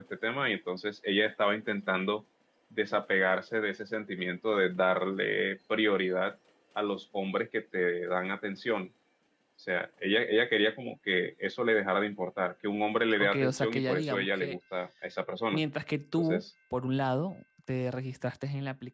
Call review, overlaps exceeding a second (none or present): present